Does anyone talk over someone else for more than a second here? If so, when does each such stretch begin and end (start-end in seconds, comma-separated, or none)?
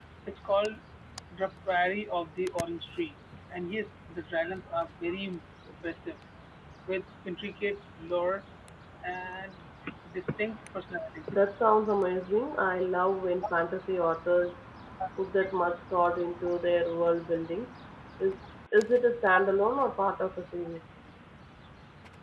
none